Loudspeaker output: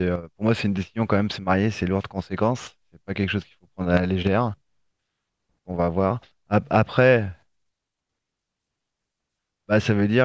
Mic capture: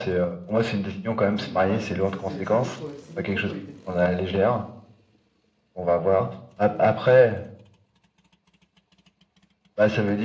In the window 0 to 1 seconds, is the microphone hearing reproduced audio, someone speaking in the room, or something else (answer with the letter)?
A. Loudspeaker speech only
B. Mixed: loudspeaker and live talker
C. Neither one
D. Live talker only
A